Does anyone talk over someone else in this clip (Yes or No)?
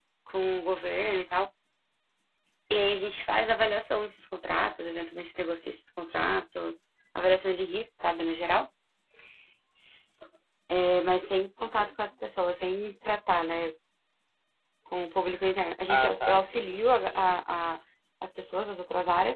Yes